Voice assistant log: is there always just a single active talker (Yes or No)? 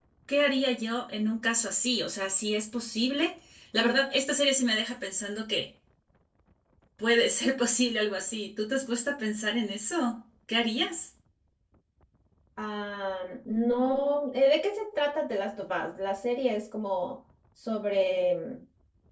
Yes